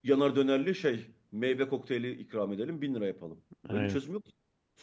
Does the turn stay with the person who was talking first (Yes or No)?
Yes